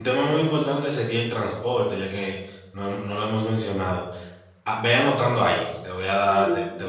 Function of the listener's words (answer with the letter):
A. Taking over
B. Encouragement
B